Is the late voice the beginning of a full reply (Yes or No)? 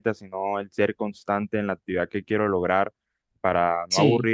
No